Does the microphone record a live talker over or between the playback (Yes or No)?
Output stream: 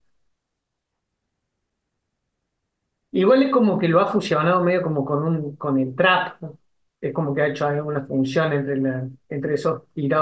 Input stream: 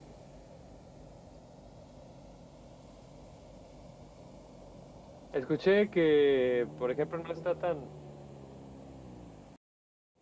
Yes